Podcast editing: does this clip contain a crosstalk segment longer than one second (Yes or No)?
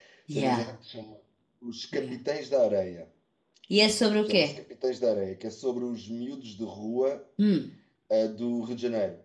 No